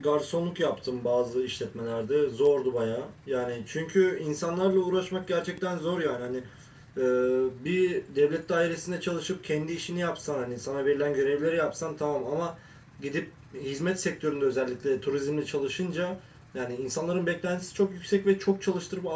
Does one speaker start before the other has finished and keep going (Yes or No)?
No